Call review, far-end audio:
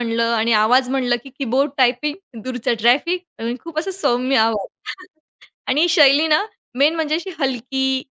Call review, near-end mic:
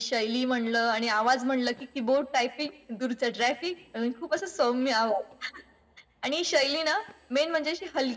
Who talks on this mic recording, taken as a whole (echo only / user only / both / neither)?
echo only